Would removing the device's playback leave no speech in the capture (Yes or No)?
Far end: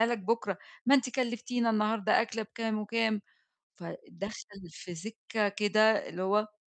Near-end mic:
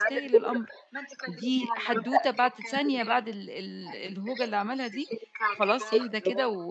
No